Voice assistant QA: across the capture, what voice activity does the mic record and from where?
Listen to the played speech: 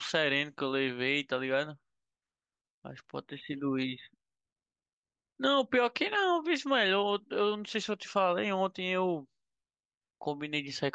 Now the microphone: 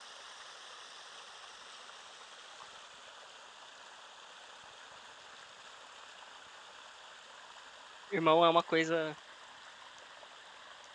user only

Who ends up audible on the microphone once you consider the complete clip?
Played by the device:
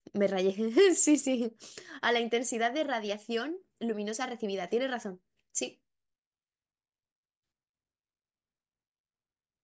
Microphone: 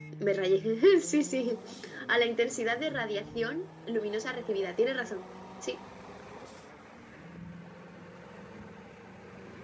echo only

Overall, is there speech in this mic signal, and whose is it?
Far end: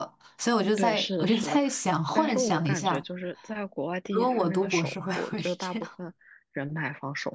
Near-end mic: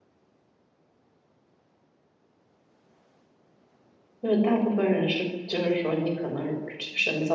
user only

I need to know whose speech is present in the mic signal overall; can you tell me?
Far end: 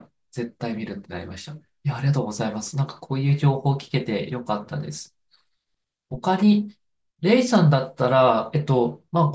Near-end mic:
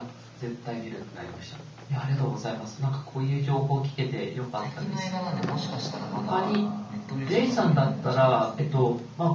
both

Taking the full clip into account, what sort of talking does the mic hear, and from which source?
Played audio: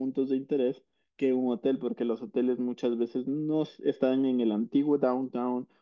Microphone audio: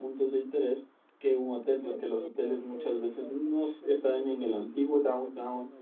both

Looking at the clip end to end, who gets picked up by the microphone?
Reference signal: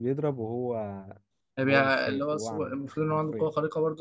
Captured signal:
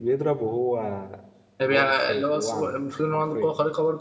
echo only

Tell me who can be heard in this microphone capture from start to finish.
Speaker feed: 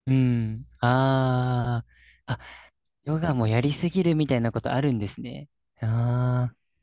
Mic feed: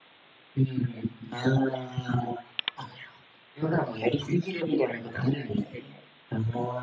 echo only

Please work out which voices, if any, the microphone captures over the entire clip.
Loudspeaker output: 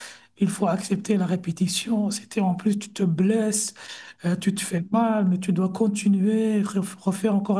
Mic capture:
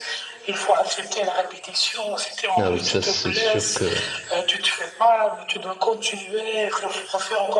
both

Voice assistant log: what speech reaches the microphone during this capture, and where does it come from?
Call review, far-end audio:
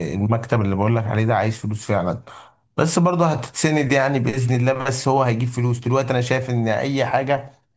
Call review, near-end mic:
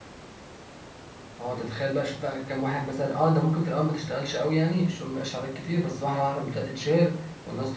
user only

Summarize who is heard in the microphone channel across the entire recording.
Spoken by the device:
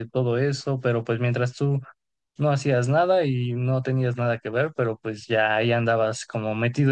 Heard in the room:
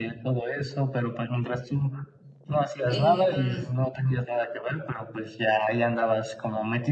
both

